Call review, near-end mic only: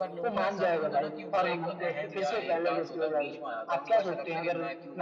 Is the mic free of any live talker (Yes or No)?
No